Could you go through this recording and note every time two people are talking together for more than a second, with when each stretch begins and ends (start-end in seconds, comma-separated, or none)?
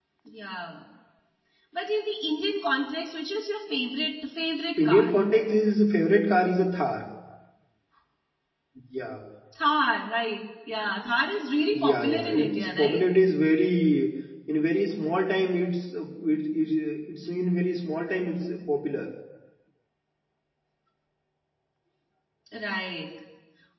11.7-13.0